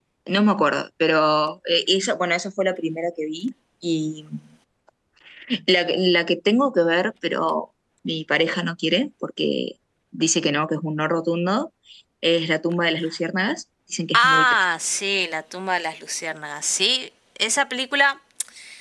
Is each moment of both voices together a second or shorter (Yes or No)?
Yes